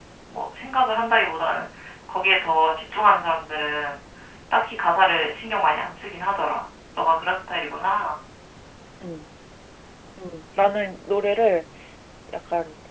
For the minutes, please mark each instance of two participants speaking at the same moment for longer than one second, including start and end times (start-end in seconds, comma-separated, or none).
none